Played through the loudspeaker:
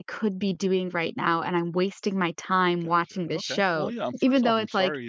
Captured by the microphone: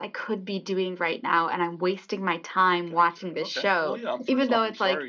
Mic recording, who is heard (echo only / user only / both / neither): echo only